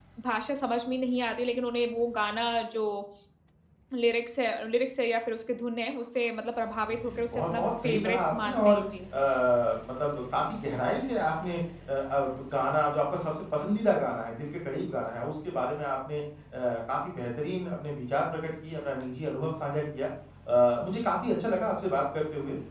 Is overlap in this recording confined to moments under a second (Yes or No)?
No